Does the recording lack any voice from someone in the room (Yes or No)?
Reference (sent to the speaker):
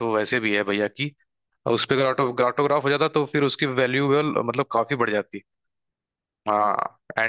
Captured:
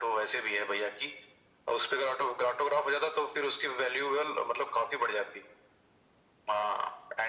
Yes